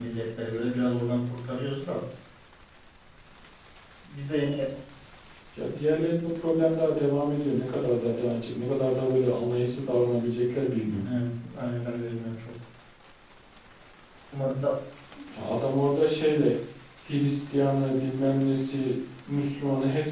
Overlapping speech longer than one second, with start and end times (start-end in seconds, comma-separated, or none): none